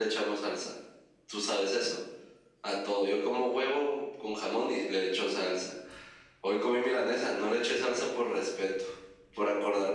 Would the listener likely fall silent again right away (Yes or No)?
Yes